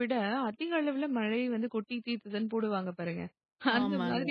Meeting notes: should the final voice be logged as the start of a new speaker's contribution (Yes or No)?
No